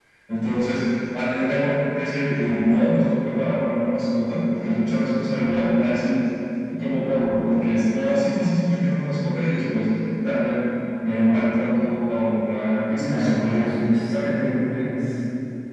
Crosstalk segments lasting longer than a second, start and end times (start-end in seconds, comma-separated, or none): 12.9-14.3